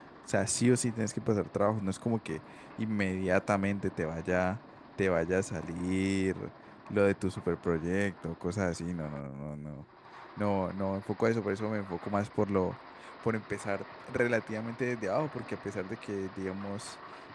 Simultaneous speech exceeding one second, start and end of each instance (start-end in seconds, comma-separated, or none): none